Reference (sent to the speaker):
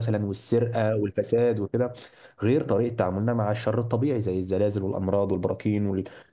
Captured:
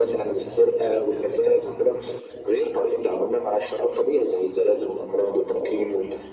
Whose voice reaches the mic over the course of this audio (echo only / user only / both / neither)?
echo only